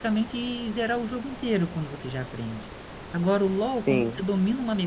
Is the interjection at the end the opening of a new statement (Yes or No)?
No